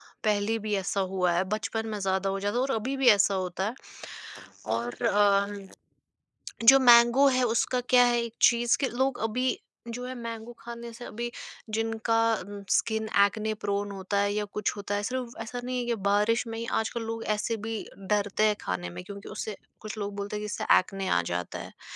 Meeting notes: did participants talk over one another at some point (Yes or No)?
No